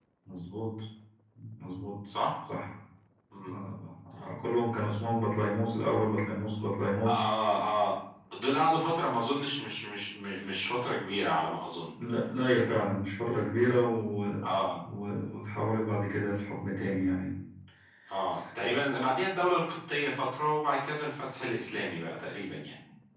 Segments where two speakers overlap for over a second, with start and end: none

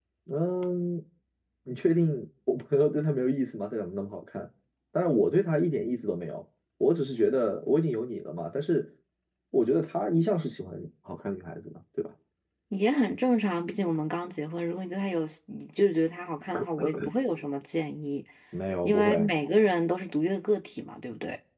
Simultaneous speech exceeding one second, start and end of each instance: none

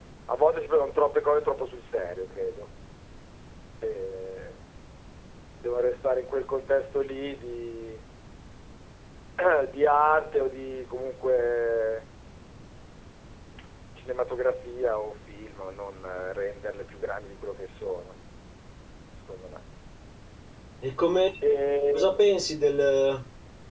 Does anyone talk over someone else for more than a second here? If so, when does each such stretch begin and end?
none

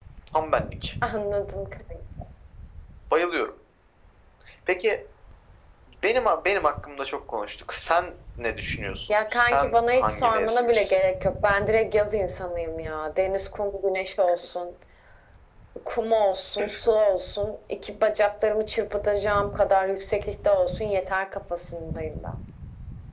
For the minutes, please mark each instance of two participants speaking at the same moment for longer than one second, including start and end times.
9.1-10.9

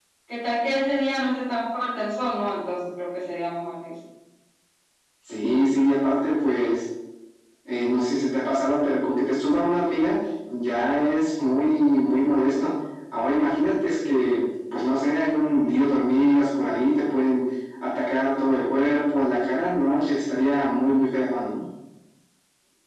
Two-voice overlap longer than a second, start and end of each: none

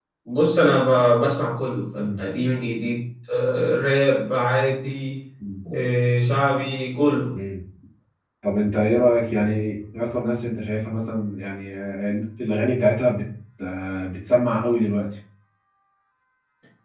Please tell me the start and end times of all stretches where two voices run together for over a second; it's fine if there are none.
none

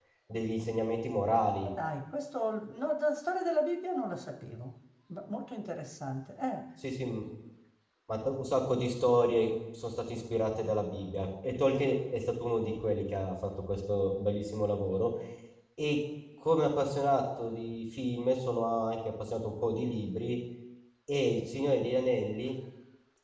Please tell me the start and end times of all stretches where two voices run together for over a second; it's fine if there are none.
none

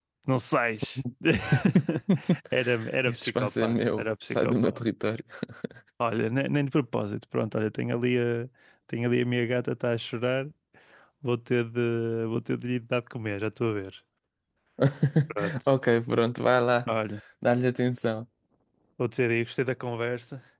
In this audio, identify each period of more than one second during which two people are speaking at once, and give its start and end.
3.1-4.8

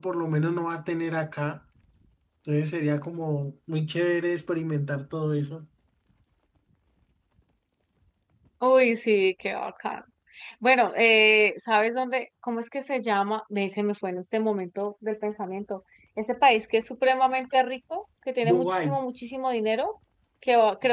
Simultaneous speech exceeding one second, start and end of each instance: none

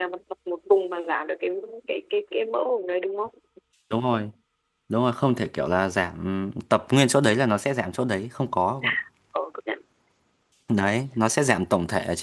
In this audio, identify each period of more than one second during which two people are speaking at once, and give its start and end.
none

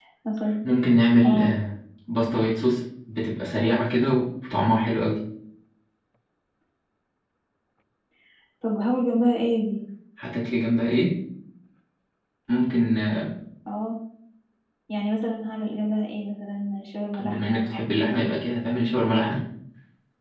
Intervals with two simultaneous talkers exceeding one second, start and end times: 17.2-18.4

